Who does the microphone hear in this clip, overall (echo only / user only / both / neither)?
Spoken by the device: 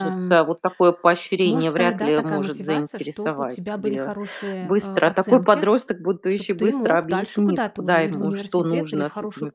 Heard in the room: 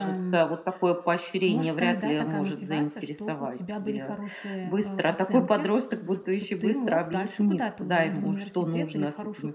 both